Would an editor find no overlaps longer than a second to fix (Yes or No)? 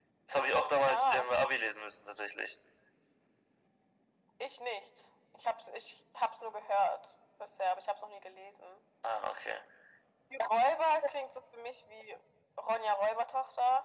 Yes